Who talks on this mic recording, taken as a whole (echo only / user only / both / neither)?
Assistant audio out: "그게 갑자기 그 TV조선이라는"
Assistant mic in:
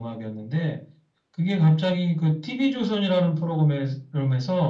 echo only